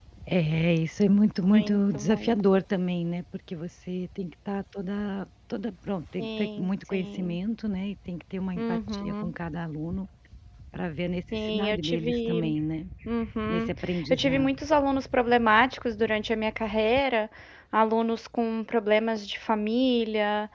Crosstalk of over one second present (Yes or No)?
Yes